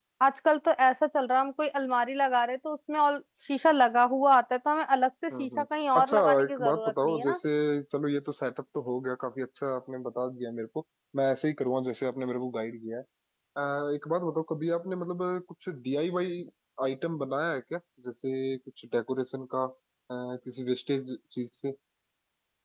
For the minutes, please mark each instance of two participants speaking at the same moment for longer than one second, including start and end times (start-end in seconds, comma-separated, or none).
6.0-7.4